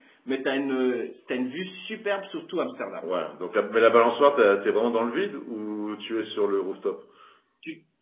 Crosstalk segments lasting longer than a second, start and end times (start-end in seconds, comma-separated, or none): none